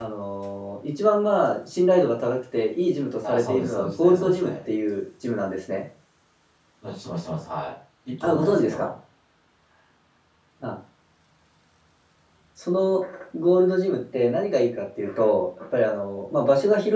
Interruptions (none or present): present